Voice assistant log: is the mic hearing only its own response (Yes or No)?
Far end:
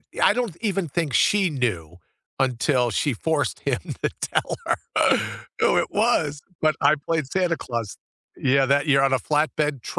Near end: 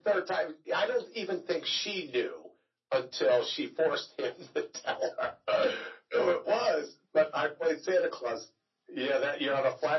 Yes